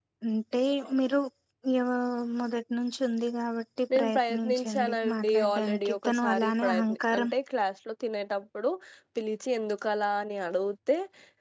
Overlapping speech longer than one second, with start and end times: 4.0-7.3

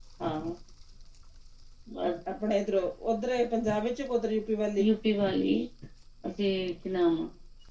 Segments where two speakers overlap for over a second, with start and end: none

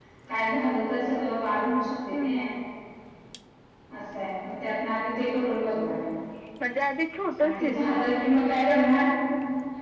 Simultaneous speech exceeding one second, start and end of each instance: none

